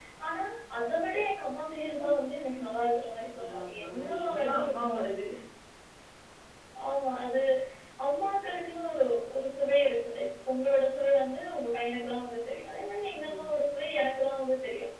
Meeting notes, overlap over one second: present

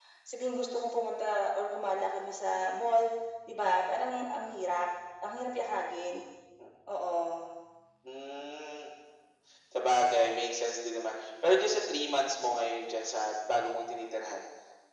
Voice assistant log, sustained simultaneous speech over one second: none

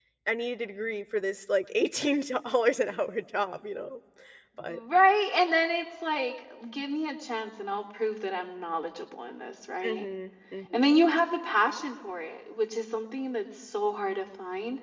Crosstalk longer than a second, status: none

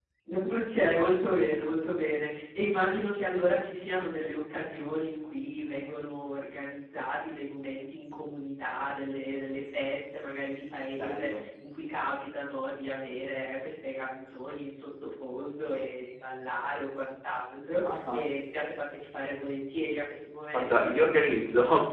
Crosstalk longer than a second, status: none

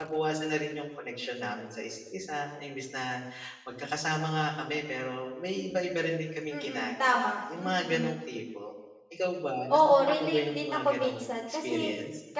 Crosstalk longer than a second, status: present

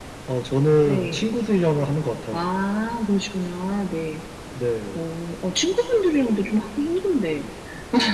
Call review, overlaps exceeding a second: none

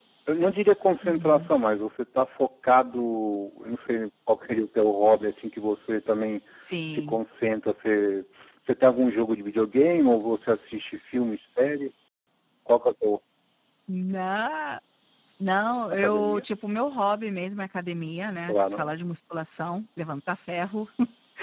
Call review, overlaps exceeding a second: none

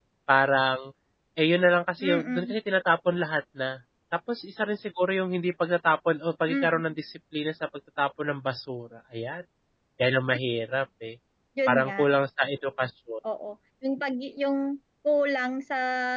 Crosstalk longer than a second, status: none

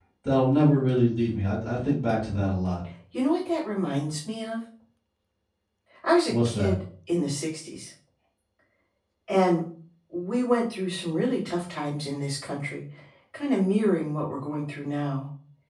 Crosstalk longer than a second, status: none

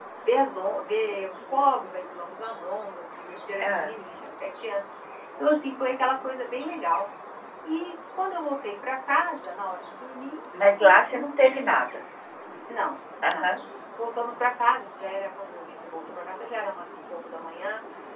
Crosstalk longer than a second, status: present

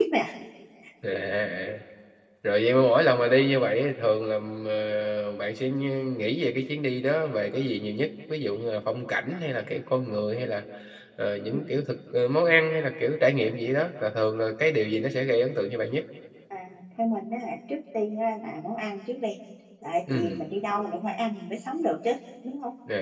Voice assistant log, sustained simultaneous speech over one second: none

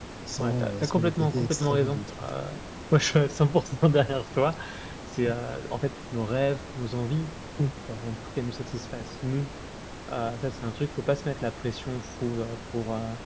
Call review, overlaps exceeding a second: present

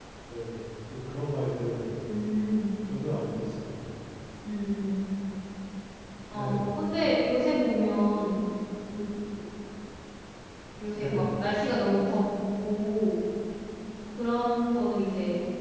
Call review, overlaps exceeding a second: none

